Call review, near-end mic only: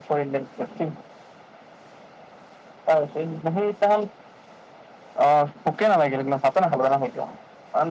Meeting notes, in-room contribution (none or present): none